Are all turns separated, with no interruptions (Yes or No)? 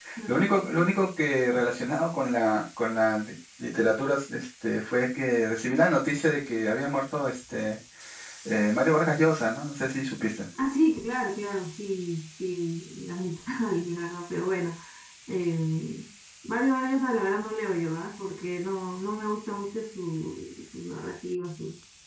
Yes